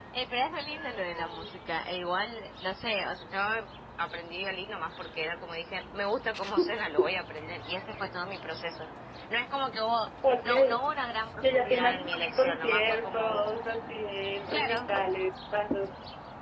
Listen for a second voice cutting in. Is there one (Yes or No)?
Yes